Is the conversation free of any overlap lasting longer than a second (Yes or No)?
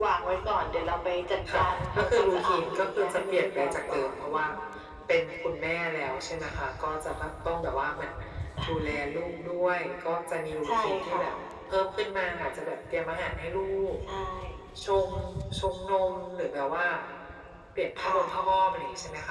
No